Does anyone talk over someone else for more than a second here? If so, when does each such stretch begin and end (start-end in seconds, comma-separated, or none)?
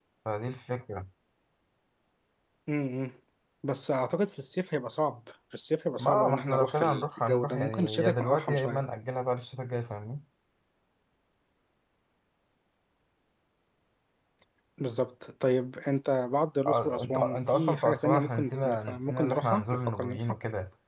6.0-8.8, 16.7-20.2